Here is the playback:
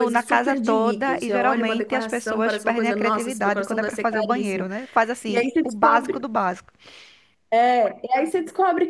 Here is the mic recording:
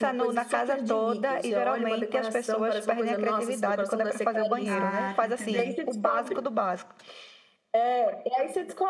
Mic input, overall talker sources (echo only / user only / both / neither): both